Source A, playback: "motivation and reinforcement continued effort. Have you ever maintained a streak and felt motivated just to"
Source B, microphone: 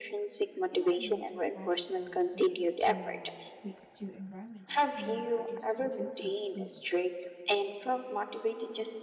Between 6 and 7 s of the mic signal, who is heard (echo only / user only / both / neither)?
both